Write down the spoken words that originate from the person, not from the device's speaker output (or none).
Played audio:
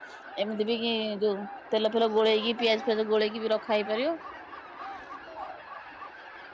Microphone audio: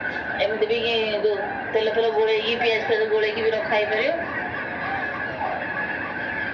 none